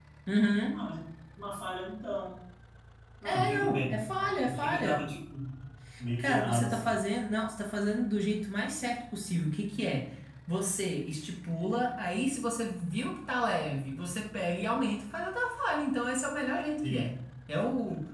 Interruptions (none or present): present